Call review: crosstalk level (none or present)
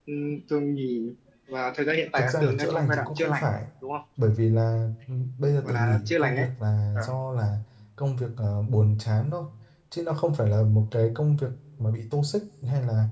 present